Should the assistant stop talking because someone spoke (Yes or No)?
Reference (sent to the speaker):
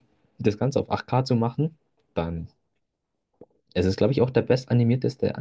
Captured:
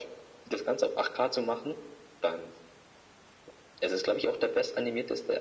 No